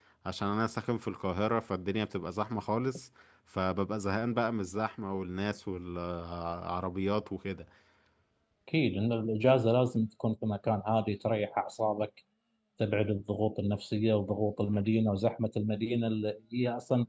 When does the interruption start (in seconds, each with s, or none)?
none